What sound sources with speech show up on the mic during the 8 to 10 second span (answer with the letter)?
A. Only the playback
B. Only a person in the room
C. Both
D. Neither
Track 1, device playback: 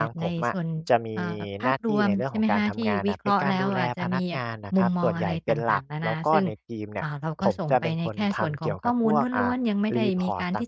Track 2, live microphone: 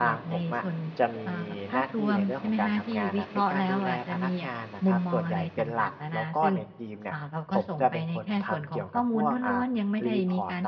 A